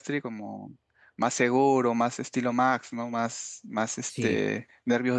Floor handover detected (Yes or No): No